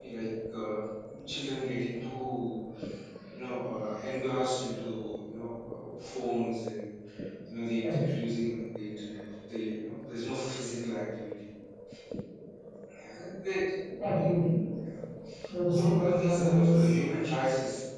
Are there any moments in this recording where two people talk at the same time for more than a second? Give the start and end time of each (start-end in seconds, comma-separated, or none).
15.7-17.0